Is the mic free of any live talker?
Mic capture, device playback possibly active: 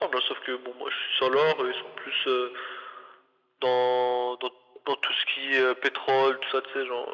Yes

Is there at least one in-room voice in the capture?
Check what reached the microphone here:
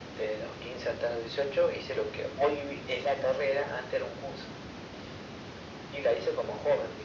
No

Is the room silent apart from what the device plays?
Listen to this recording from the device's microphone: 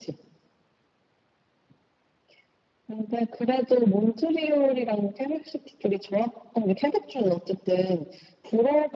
Yes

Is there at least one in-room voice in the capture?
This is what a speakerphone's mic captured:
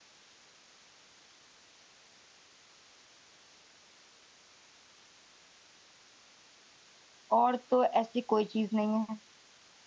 Yes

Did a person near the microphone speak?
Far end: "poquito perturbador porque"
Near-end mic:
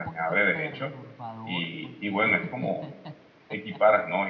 Yes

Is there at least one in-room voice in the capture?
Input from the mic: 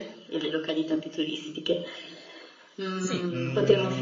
Yes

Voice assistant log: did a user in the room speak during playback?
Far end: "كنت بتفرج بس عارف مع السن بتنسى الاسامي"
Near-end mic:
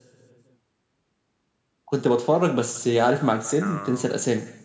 Yes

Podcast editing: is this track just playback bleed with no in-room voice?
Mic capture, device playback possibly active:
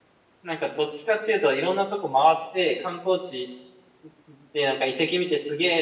No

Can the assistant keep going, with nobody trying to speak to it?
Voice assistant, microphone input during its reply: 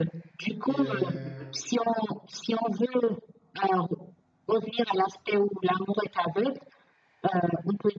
No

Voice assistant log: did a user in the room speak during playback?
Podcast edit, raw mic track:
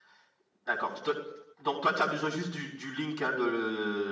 No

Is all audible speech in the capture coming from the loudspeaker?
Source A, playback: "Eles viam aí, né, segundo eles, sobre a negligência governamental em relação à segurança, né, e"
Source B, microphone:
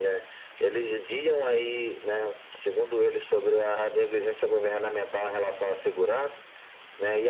Yes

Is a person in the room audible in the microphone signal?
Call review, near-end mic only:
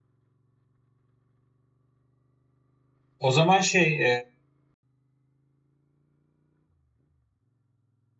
Yes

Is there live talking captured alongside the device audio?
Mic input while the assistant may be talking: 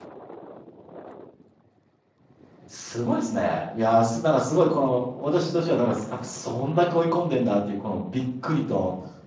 Yes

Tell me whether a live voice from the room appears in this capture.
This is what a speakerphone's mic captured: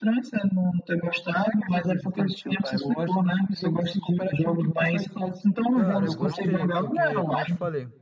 Yes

